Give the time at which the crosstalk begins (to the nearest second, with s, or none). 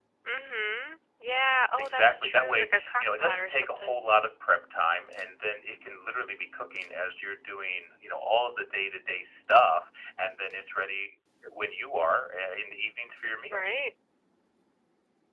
2 s